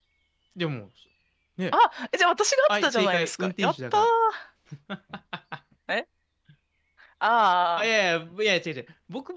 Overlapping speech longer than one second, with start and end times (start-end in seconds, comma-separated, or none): 2.7-4.1